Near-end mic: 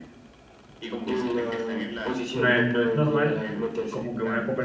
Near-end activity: present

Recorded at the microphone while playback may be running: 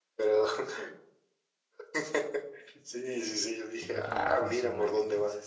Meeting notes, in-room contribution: present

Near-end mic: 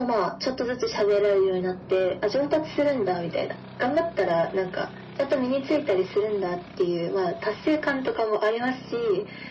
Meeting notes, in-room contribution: none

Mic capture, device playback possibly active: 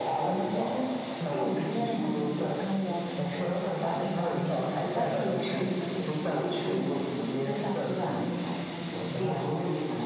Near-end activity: present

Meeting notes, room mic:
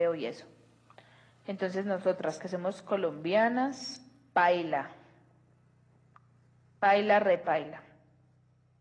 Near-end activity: none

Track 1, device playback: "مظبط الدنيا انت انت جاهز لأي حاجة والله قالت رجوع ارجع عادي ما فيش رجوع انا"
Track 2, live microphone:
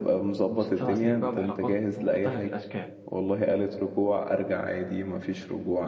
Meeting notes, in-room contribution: present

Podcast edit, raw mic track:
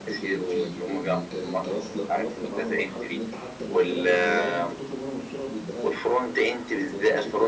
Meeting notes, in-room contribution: present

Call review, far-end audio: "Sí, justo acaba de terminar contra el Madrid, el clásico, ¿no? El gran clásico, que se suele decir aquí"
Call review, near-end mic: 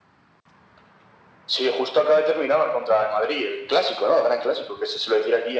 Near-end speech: none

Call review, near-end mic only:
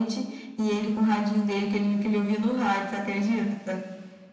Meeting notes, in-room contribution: none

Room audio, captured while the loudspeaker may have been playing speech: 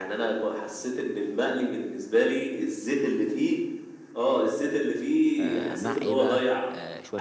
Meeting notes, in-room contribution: present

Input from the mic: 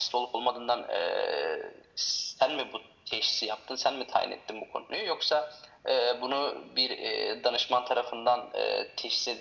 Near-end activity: none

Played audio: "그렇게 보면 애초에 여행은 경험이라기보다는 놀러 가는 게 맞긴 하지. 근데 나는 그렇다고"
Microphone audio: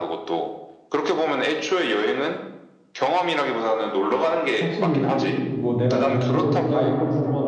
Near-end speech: present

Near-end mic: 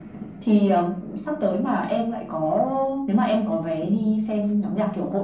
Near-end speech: none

